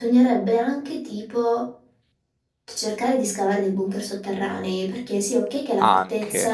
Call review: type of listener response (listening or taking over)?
listening